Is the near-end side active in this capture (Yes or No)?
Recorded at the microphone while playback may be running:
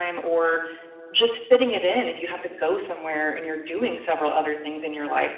No